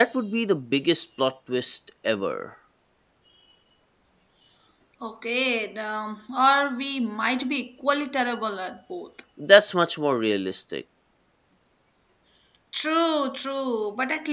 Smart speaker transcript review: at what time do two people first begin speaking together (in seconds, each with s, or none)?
none